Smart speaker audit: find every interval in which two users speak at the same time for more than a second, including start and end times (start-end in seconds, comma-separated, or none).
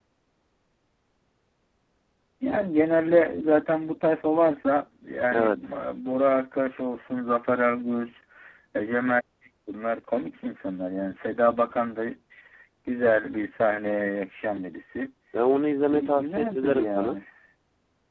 15.9-17.2